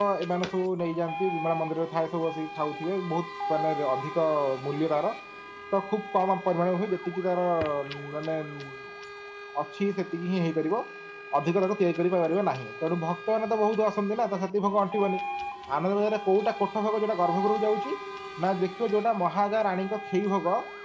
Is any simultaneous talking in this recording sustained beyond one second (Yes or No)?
No